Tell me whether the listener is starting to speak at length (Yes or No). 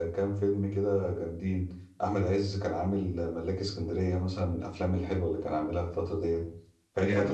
No